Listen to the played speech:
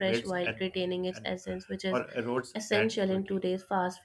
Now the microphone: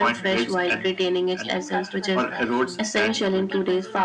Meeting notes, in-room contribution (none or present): present